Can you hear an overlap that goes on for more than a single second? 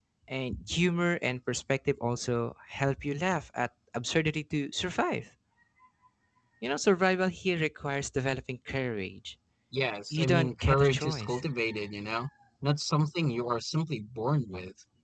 Yes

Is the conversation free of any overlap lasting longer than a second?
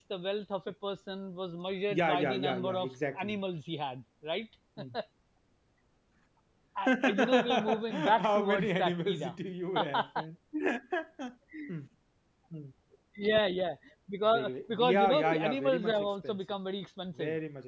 No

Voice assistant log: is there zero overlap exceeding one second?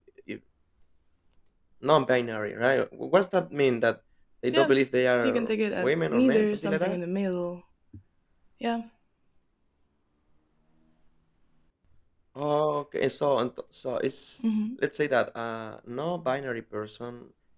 No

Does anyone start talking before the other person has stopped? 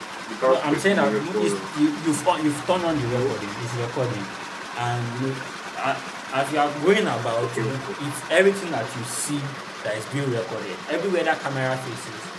Yes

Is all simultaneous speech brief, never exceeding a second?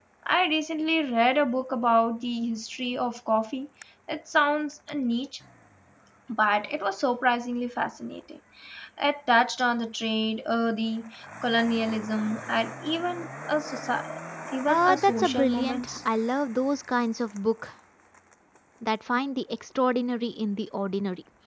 No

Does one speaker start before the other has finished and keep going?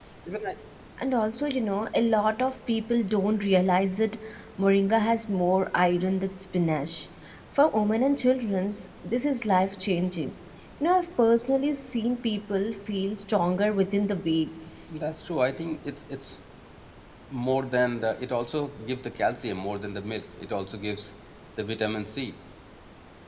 No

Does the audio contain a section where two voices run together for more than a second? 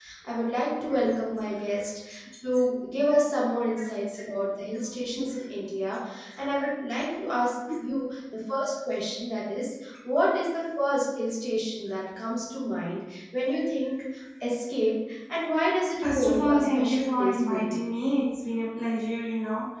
Yes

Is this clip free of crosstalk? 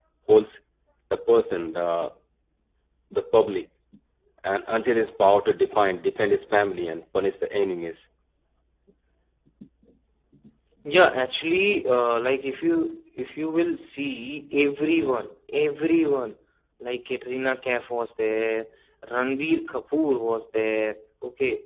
Yes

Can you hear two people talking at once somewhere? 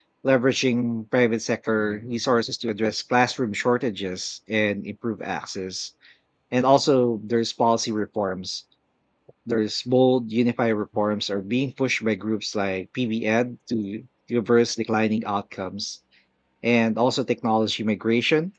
No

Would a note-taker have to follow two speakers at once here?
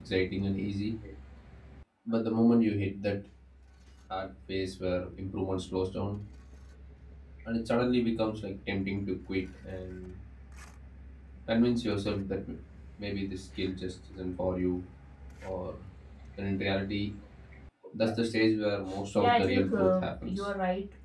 Yes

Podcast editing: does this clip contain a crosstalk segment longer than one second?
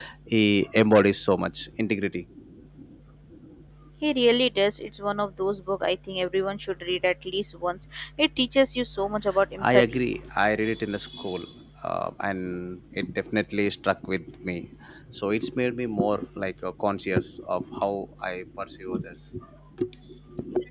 No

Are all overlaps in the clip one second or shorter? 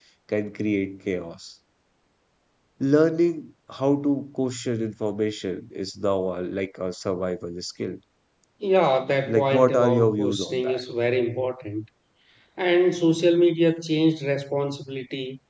No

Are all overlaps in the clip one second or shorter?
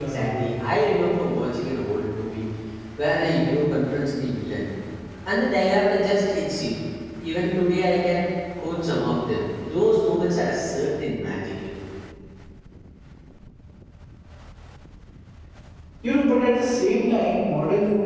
Yes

